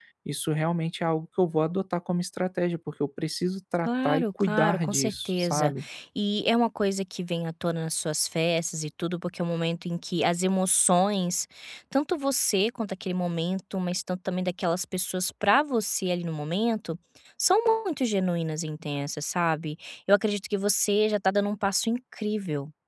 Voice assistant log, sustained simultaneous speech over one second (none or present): present